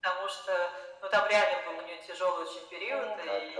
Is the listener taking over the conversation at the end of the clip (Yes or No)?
No